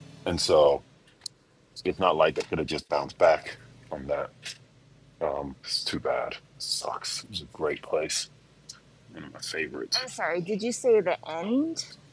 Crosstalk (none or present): none